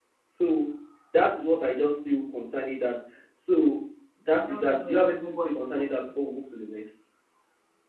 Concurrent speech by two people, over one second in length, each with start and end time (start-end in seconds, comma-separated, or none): 4.3-6.2